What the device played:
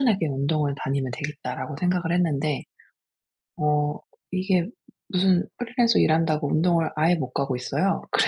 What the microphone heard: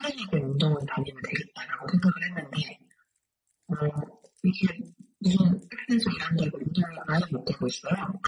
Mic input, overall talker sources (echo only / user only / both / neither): echo only